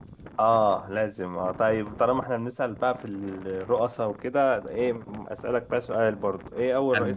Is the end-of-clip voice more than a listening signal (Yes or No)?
No